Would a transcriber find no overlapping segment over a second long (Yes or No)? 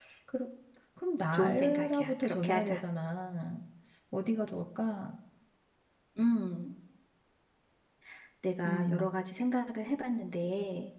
No